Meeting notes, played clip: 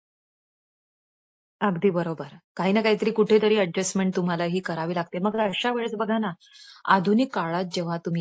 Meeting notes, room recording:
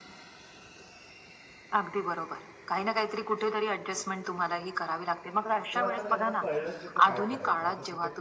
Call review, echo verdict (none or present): present